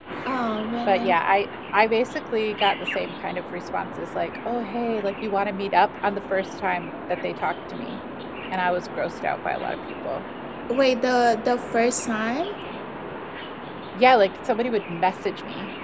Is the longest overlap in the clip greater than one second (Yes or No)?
No